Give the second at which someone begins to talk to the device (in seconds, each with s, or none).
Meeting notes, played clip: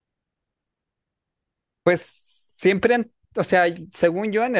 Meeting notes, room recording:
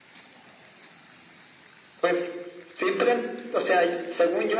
none